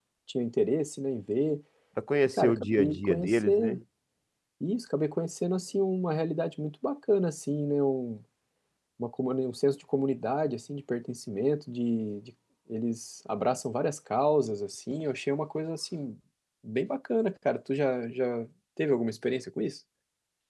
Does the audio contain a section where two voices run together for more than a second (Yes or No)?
Yes